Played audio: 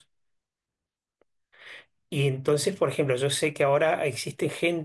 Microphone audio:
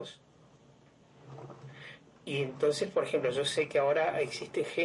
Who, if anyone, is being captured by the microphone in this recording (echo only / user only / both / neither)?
echo only